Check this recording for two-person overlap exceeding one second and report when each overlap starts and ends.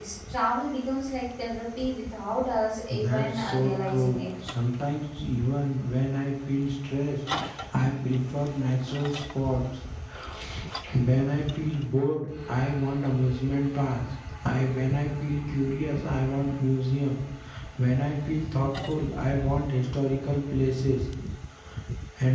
2.9-4.2

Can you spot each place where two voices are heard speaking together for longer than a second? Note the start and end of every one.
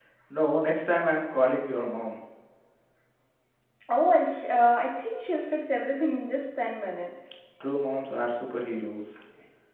none

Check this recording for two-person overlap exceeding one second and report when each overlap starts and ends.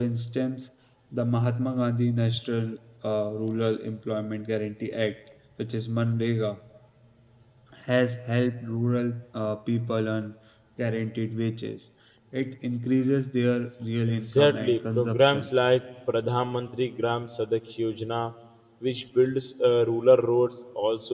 14.1-15.4

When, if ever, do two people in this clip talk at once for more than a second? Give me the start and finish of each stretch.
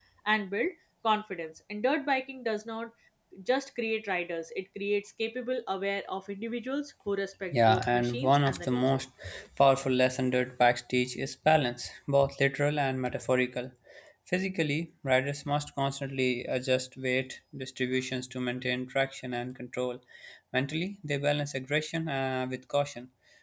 7.5-9.0

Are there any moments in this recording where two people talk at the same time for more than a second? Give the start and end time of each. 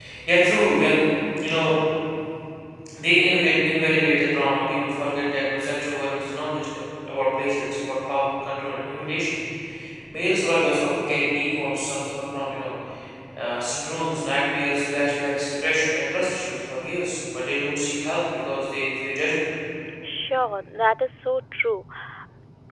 none

